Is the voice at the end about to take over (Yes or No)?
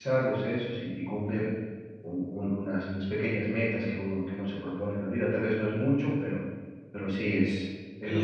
Yes